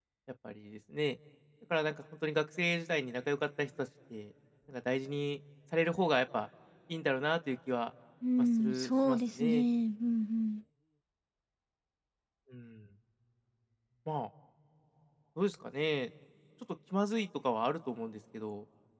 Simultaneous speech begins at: 8.4 s

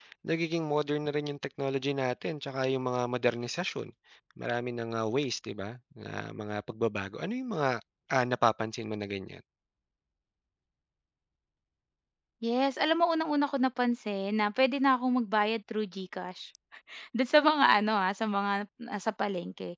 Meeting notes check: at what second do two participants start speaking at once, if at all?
none

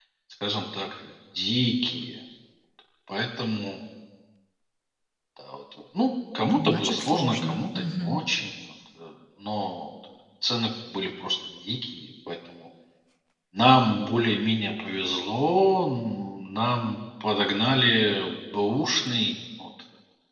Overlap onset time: 6.5 s

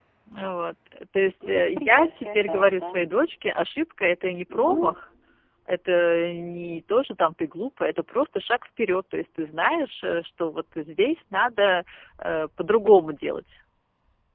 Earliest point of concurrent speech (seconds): 1.5 s

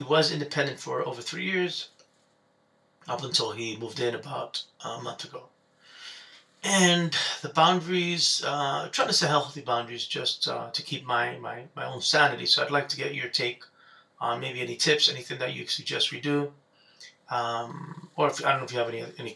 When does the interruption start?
none

